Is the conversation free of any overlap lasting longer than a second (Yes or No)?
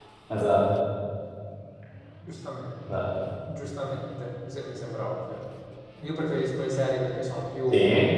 Yes